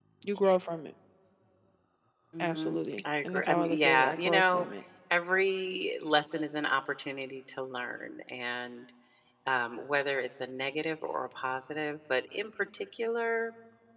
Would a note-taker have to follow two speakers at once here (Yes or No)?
Yes